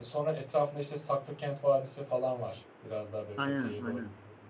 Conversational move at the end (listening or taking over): listening